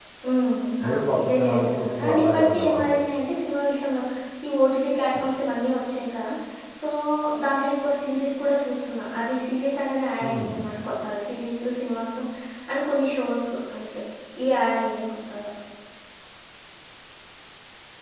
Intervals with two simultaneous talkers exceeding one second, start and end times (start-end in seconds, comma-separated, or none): 0.9-2.9